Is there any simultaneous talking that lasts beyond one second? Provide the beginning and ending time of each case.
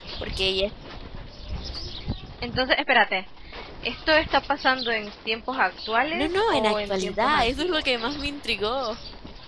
6.1-8.0

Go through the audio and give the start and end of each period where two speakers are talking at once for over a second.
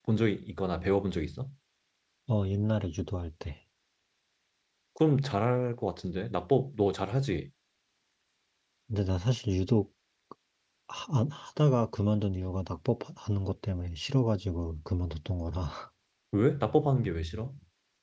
none

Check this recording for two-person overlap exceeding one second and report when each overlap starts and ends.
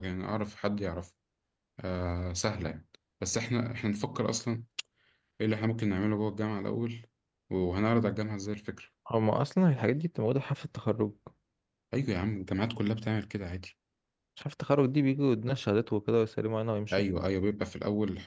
none

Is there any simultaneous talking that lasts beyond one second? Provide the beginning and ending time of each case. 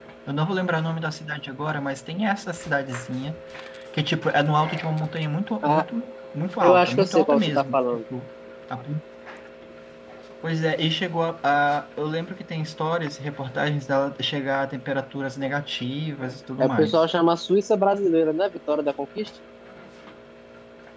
6.6-8.0

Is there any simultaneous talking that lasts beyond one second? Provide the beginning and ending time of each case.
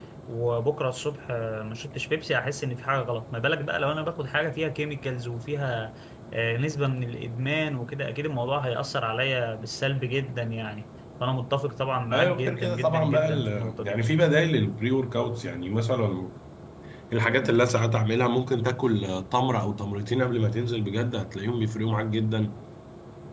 12.1-14.0

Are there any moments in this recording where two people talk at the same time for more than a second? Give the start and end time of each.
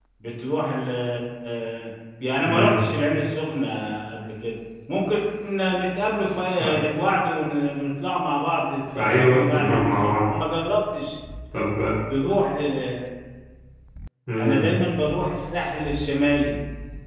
9.0-10.3

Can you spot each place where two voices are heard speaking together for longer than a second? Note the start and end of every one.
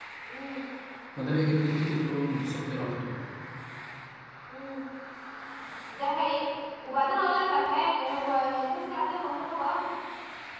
none

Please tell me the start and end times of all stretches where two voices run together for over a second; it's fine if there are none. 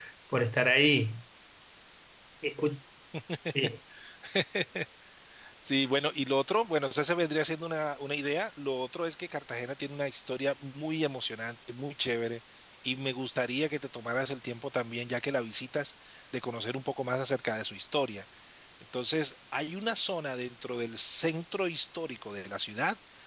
none

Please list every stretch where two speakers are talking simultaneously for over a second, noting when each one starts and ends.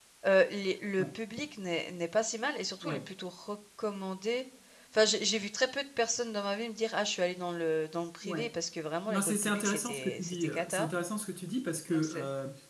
9.1-10.9

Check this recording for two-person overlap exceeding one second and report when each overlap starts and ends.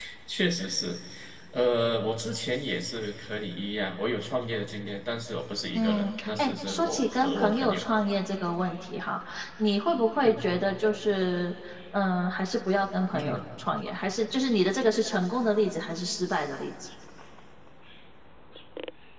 5.7-7.8

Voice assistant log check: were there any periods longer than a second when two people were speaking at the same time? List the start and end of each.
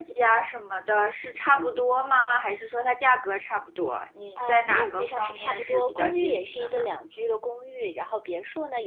4.5-6.9

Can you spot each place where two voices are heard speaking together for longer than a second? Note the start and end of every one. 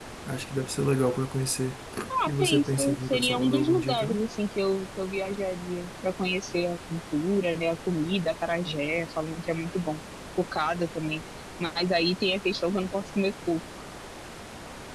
2.3-4.3

